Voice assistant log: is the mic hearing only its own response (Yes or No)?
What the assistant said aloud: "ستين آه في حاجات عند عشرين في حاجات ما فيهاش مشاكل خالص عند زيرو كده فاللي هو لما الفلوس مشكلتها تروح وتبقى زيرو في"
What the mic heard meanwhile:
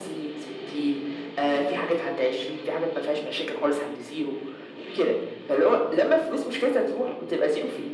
Yes